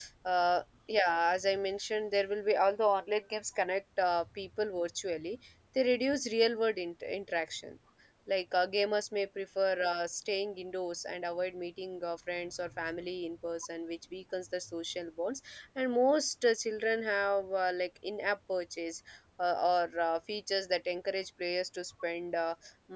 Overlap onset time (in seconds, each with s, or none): none